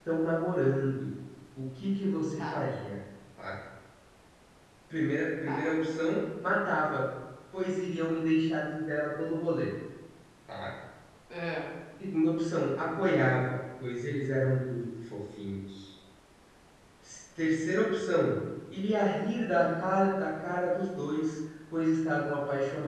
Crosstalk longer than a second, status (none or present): none